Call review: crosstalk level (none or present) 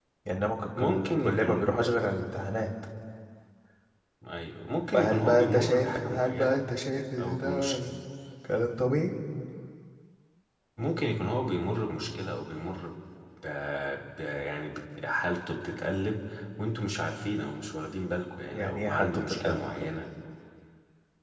present